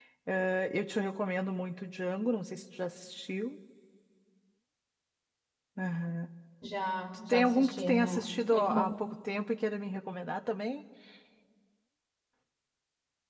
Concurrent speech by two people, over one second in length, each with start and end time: 7.3-8.8

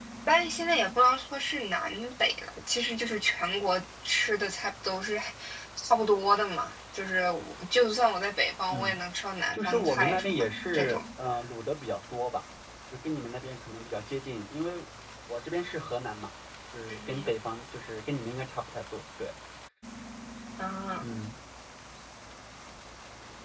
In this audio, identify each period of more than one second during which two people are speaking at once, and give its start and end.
9.5-11.0

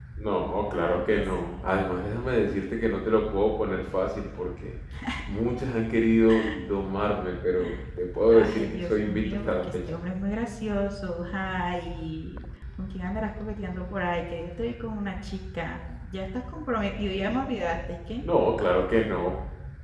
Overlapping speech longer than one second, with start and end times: 0.8-2.0, 8.3-10.0

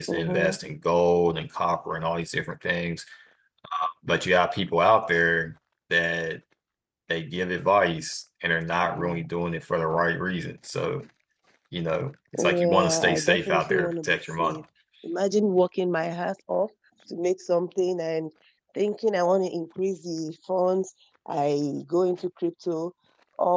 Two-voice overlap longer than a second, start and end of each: 12.4-14.6

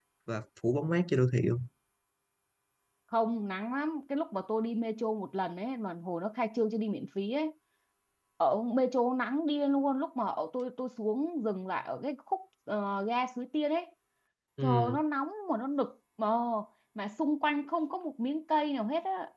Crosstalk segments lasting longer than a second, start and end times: none

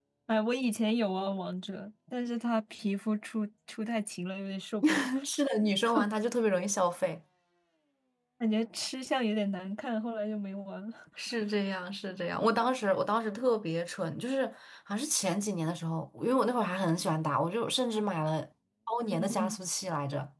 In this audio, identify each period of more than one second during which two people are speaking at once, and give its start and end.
none

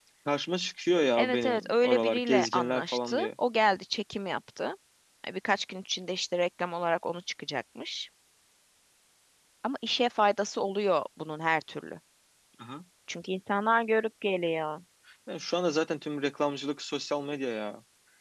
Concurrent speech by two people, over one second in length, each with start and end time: 1.2-3.3

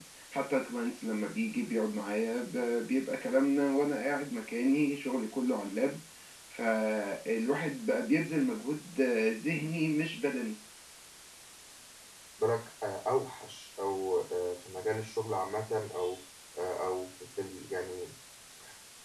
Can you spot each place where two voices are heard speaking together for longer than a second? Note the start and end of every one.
none

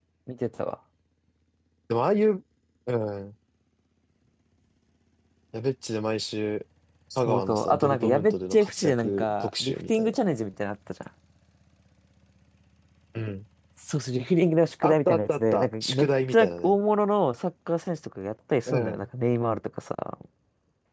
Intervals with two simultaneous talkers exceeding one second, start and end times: 7.2-10.2, 14.8-16.7

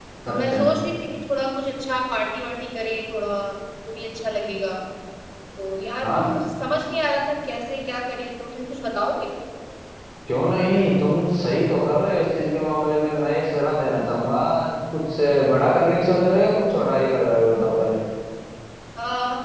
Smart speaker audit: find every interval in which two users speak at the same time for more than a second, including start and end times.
none

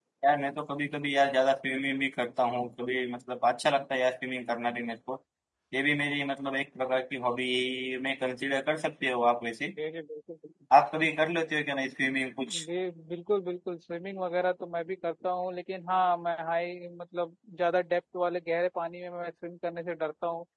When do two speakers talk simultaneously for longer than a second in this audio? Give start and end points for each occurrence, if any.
none

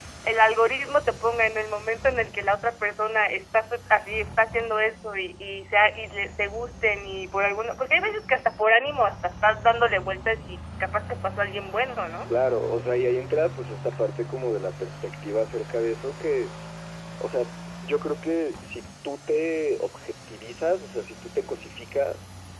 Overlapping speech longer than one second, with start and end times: none

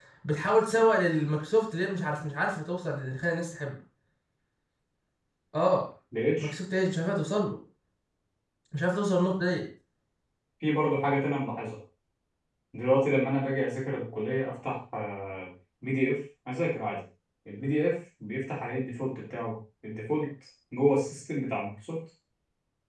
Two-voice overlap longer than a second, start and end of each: none

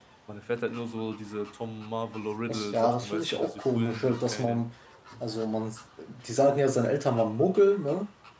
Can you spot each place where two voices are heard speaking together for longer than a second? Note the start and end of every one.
2.5-4.6

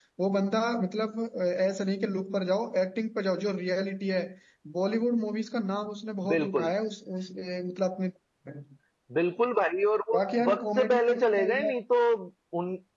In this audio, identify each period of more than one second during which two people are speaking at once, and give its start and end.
10.1-11.7

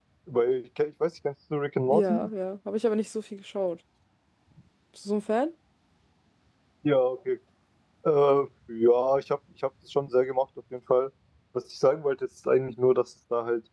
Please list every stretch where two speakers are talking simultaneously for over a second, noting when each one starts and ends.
none

